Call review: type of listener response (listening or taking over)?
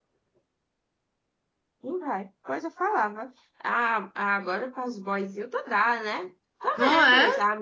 listening